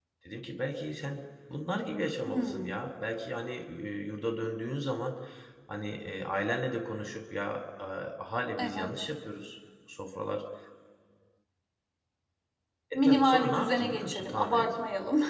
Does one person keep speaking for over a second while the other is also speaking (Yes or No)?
Yes